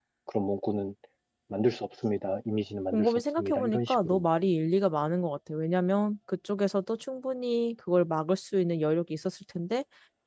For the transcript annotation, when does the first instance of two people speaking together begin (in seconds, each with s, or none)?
2.9 s